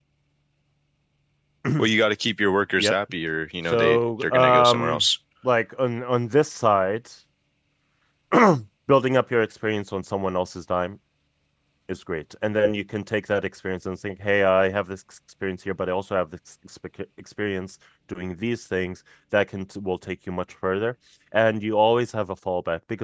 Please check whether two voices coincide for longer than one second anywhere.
Yes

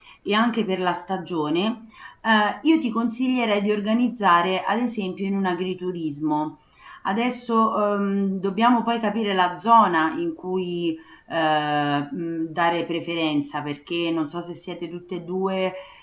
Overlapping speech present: No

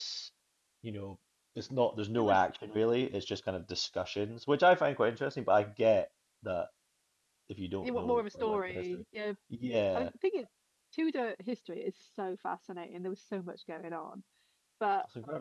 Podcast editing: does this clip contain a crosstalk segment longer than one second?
Yes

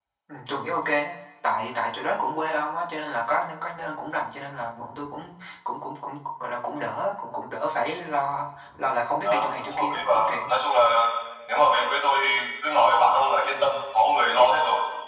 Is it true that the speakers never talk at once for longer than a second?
No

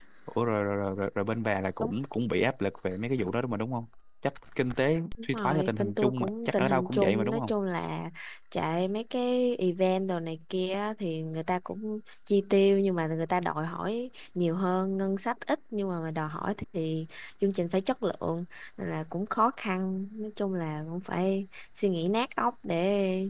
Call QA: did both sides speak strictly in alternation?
No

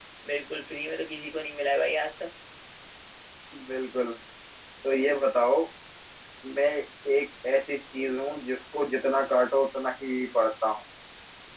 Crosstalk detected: No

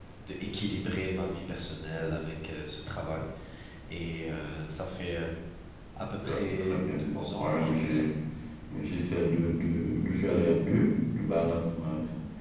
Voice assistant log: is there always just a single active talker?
No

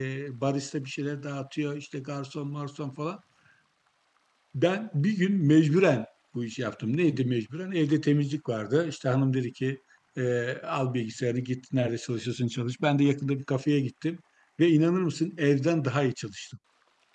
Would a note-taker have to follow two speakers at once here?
No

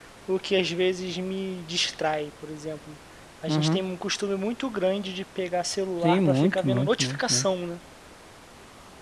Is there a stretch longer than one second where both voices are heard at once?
Yes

